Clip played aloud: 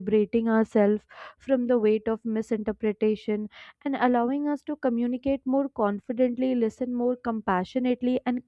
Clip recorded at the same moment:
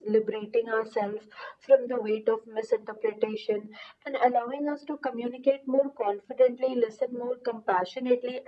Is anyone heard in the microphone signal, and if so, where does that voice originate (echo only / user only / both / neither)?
echo only